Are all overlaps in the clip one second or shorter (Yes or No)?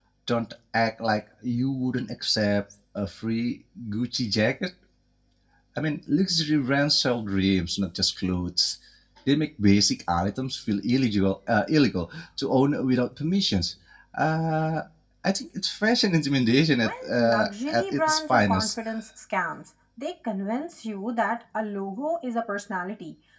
No